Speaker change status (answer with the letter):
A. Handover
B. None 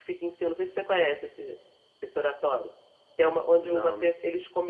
B